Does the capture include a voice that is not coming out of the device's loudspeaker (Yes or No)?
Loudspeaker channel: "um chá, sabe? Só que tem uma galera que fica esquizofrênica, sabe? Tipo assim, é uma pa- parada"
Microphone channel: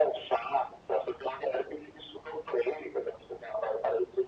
No